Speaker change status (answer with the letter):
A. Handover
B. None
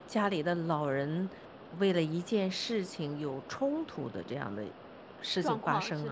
A